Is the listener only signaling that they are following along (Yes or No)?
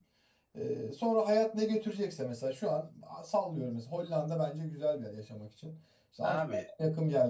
Yes